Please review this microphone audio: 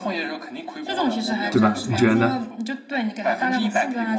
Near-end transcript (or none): 对吧？你觉得呢？